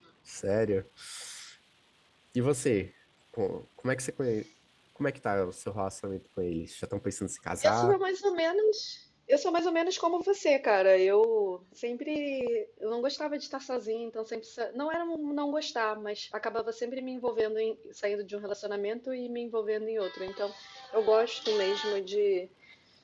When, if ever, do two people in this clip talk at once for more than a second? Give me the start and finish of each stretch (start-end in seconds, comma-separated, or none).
none